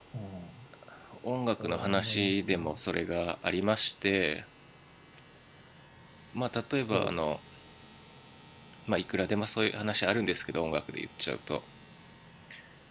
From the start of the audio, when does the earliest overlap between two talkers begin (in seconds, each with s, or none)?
1.6 s